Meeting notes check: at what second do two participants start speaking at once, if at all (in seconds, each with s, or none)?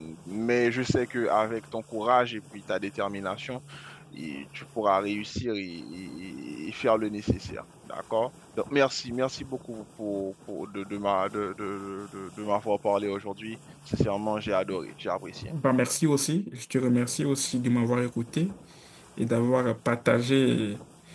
none